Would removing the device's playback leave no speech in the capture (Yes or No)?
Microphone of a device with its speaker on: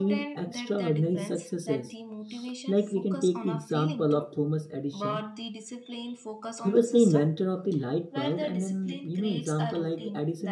No